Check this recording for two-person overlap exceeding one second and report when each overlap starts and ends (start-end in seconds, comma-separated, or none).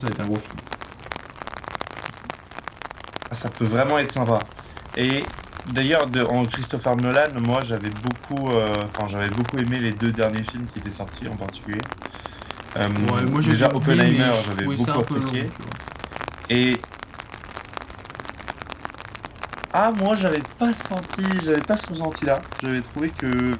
13.0-15.5